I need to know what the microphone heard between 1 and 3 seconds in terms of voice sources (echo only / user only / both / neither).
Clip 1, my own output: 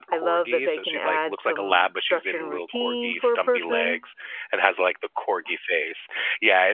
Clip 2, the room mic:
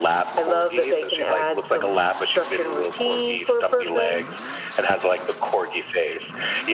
echo only